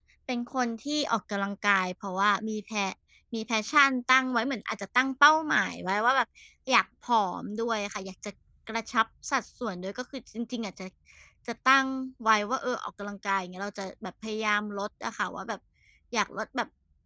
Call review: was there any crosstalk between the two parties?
No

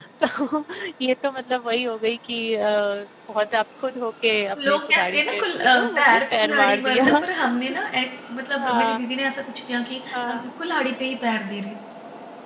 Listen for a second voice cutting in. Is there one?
Yes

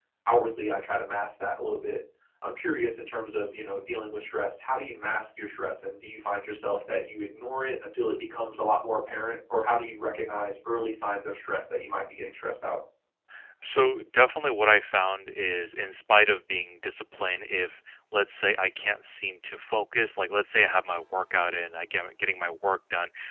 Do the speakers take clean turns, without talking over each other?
Yes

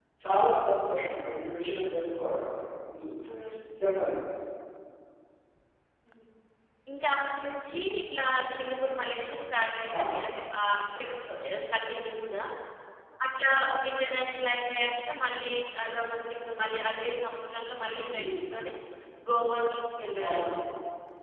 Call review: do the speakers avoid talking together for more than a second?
Yes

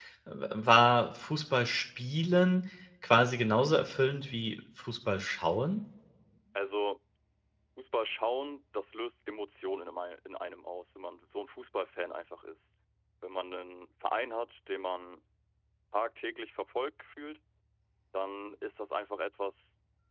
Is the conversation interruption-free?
Yes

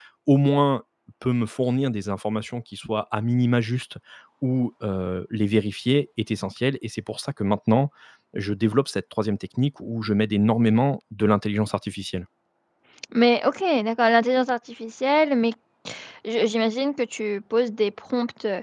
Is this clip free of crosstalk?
Yes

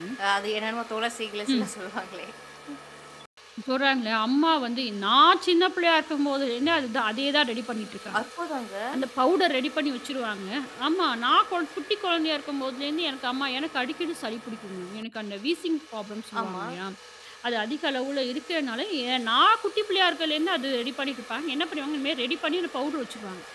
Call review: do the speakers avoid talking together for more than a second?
Yes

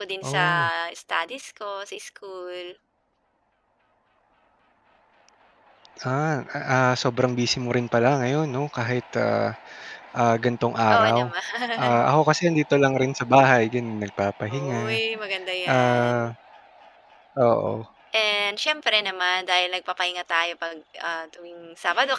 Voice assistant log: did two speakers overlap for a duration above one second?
No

